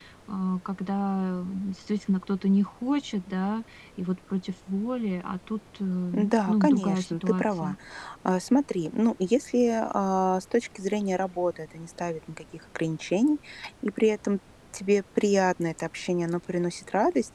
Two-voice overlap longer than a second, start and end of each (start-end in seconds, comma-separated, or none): 6.1-7.8